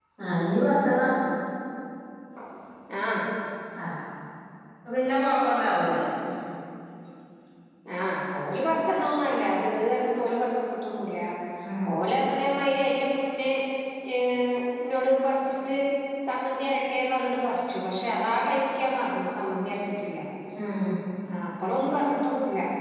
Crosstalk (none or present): none